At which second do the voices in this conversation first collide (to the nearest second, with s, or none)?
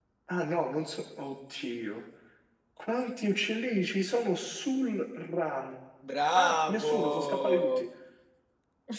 6 s